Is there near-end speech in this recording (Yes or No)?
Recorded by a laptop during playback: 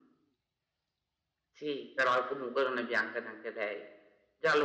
No